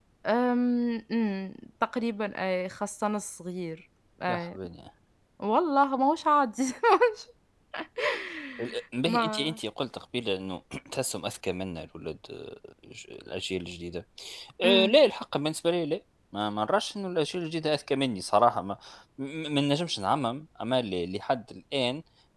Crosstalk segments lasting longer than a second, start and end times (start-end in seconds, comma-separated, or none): none